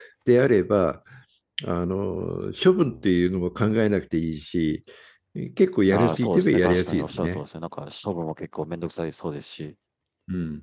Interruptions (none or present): present